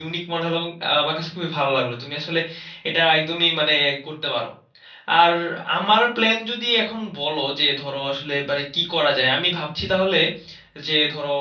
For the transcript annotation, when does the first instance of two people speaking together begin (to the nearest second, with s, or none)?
none